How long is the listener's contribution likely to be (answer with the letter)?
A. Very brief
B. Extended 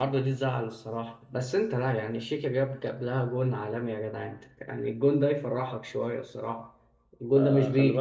B